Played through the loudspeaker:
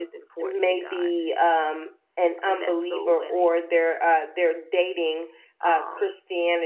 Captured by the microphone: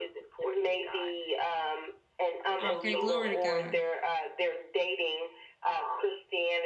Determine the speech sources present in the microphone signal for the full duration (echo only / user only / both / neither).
both